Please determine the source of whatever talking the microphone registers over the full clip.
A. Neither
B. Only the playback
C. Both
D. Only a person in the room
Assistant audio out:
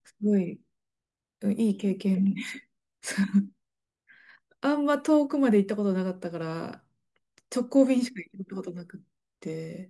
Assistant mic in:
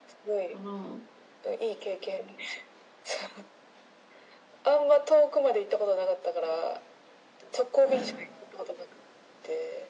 C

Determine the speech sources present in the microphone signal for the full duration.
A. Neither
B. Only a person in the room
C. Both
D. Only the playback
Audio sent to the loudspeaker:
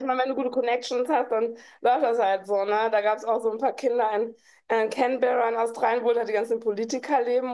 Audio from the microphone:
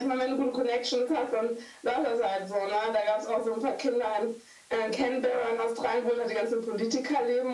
D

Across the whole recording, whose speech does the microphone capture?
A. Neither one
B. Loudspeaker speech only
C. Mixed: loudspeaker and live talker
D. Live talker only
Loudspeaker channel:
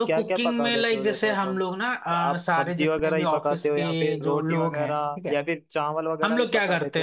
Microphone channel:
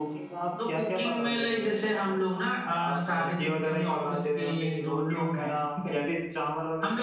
B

